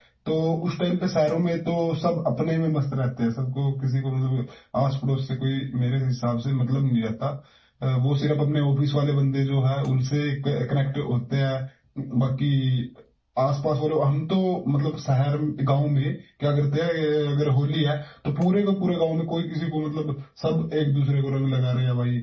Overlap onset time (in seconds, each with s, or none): none